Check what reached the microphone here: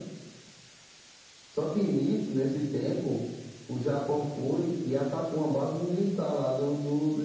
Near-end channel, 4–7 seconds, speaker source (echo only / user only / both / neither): echo only